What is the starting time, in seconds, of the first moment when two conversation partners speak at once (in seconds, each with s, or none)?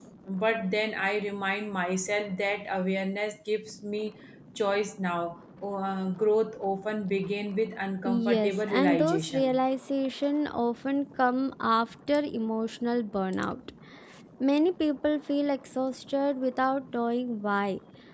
8.0 s